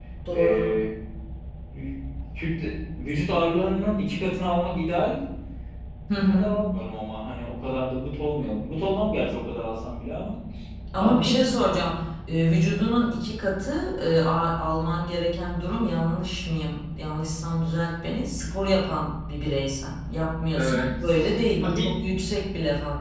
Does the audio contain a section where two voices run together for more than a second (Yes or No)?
No